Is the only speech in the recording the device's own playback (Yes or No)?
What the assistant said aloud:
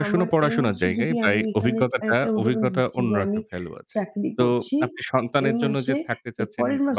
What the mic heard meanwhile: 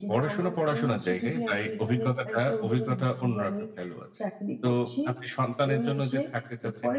Yes